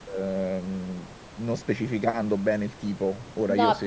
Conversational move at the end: taking over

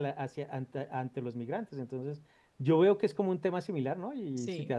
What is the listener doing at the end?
listening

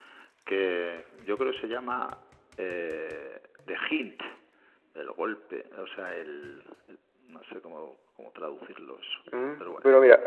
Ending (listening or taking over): taking over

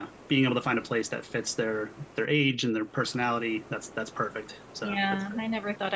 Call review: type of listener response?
taking over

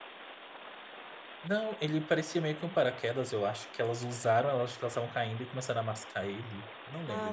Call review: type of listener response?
taking over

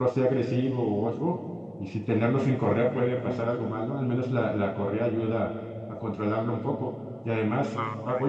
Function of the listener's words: taking over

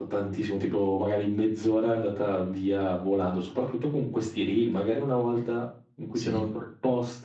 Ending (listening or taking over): listening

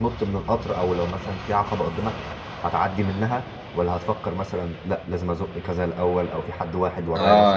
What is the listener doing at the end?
taking over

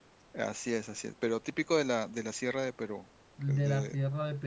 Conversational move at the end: taking over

